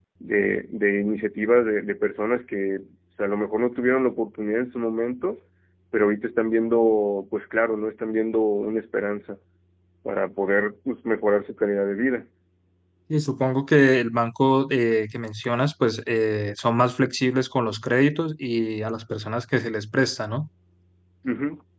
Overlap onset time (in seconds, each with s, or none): none